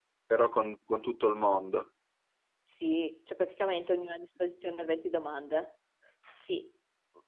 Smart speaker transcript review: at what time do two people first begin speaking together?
none

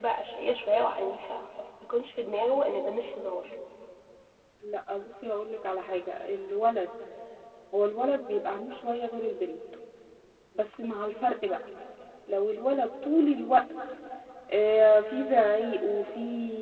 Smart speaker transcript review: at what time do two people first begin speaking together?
none

